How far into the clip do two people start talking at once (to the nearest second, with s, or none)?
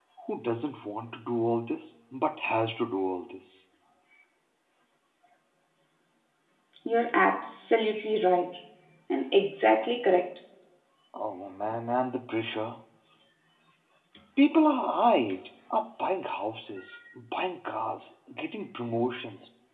none